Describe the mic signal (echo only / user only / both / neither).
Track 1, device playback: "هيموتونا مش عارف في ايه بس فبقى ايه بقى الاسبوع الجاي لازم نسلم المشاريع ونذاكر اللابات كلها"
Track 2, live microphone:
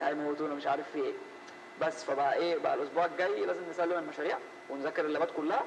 echo only